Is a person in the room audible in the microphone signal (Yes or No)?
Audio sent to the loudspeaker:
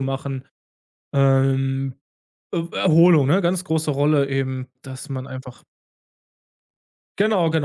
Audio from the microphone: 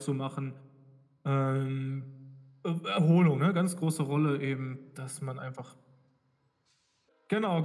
No